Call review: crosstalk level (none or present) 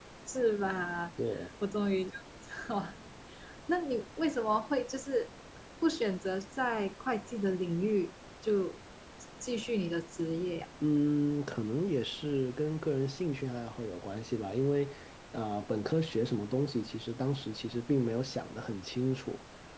none